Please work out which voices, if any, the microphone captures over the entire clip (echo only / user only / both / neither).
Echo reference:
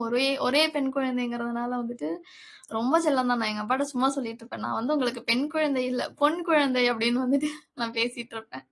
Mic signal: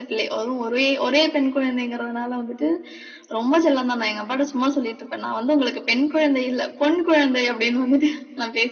echo only